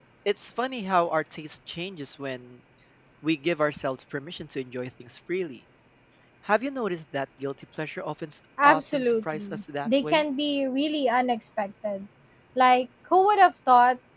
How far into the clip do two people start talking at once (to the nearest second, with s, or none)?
9 s